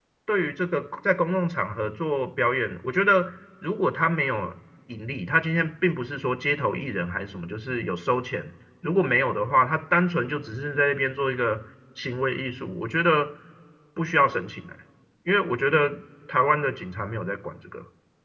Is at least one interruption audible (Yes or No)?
No